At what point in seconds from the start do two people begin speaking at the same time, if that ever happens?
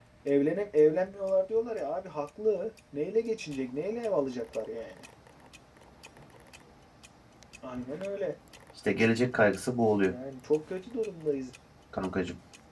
none

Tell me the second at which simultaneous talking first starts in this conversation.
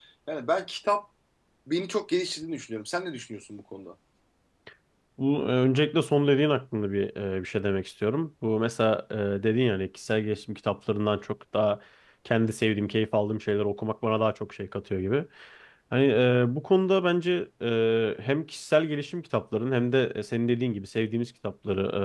none

